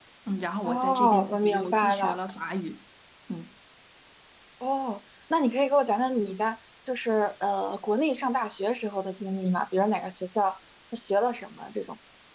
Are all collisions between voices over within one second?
No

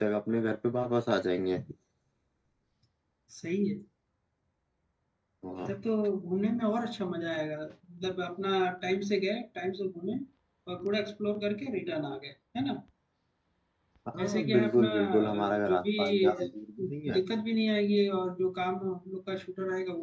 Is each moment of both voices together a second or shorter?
No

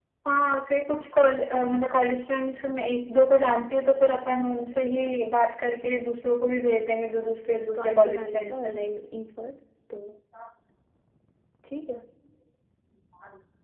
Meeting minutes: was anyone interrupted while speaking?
Yes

